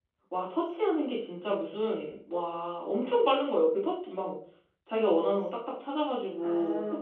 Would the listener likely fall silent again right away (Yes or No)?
No